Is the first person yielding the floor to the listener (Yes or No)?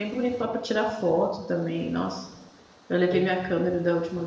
No